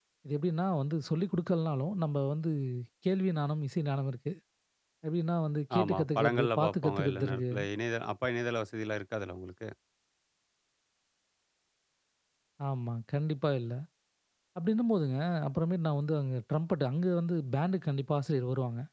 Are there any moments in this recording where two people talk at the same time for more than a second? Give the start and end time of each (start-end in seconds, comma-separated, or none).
5.8-7.4